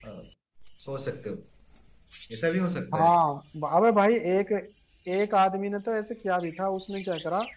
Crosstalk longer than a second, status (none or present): none